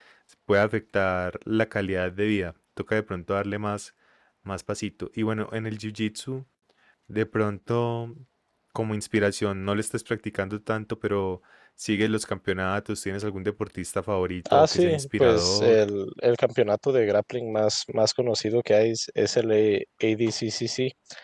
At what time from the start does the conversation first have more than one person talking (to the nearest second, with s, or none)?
14 s